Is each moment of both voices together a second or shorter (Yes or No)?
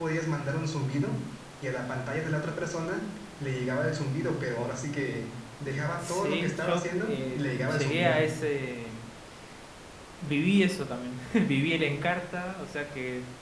No